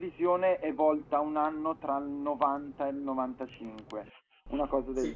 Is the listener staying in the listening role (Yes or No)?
No